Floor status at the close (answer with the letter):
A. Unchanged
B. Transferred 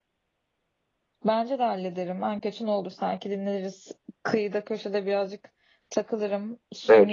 B